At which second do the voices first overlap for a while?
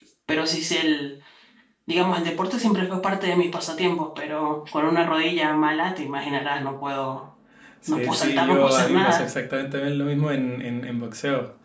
7.9 s

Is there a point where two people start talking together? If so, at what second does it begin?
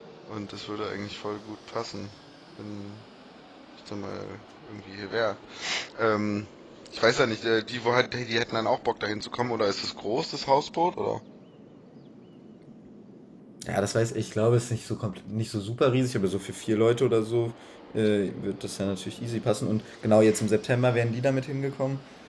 none

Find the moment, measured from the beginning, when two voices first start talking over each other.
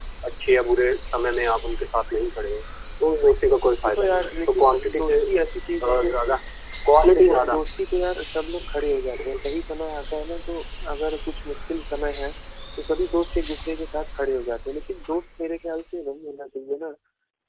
3.8 s

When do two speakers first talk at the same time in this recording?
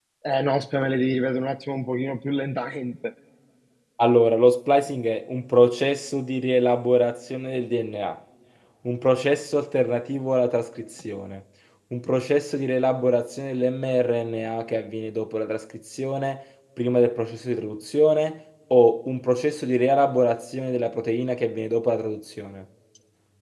none

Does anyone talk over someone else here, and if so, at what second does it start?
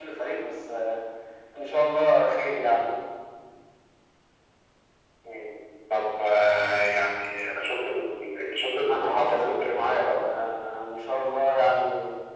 8.9 s

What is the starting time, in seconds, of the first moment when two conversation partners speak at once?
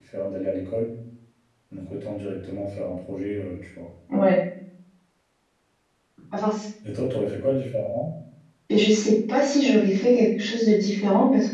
none

